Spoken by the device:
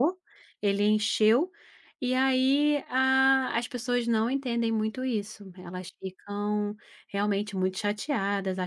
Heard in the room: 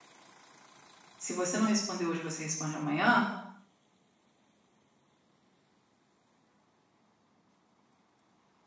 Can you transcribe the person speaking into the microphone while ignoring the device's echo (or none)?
Se você não responder hoje, você responde amanhã,